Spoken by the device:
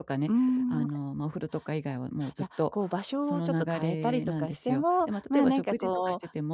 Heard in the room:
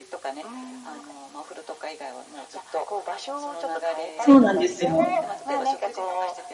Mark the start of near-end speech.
4.2 s

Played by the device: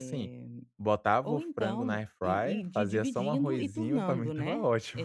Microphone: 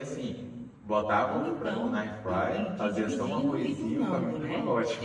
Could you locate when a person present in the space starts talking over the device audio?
none

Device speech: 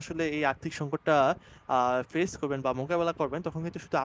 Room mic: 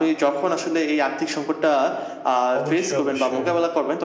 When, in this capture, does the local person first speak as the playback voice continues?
2.6 s

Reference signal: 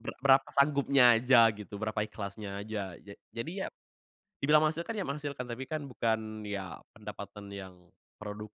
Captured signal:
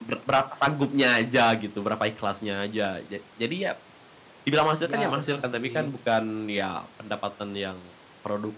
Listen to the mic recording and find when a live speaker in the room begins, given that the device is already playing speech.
4.8 s

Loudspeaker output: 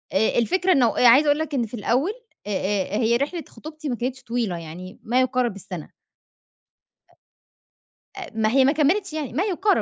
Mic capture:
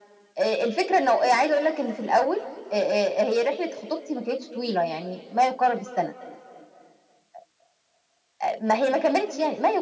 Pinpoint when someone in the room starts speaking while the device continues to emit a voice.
none

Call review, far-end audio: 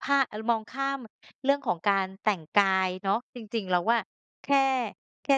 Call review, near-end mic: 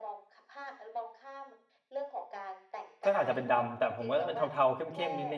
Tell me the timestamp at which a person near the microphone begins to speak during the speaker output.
3.0 s

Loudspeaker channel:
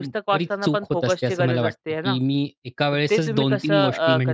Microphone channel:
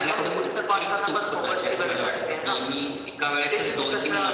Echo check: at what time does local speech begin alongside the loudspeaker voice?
none

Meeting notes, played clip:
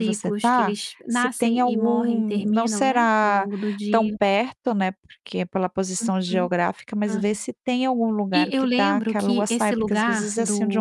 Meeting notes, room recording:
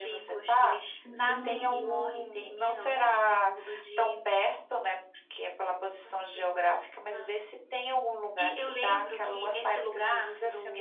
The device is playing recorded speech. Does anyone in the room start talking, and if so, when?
1.0 s

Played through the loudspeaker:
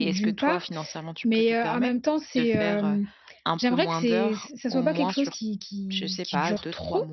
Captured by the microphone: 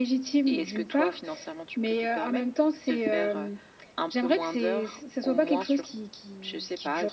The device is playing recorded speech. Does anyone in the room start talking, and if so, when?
none

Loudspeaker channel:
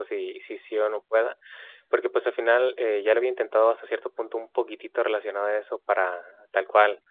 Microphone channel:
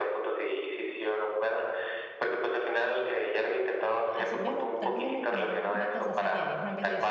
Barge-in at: 4.1 s

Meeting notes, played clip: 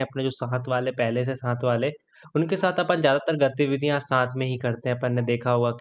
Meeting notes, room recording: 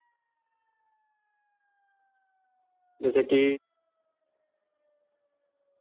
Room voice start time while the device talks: 3.0 s

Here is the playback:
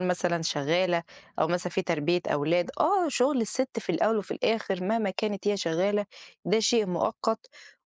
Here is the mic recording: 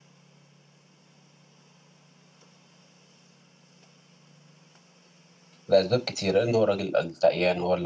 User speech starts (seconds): 5.7 s

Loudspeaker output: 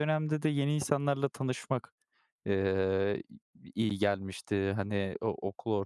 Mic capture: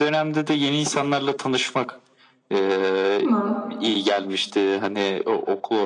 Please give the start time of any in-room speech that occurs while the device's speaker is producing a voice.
3.2 s

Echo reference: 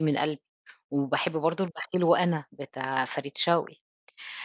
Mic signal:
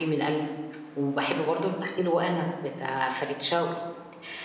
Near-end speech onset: none

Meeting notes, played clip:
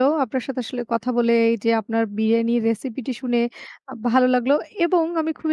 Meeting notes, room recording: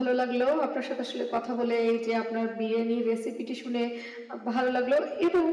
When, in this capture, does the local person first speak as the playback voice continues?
none

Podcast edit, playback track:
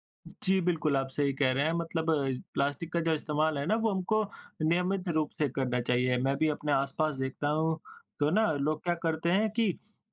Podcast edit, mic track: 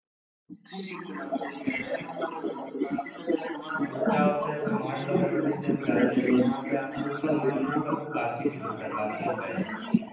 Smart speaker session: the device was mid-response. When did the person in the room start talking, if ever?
3.8 s

